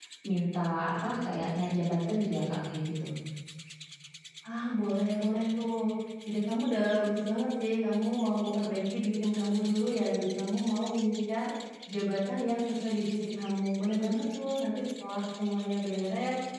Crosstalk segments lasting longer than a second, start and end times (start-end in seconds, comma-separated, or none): none